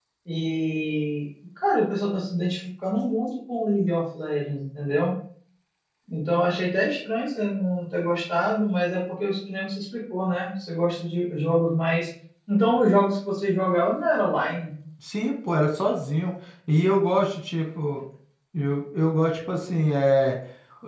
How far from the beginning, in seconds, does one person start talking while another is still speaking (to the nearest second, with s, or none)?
none